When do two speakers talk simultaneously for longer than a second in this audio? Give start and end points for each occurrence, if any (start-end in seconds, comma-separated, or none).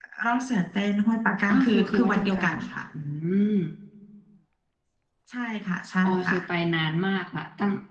1.5-2.8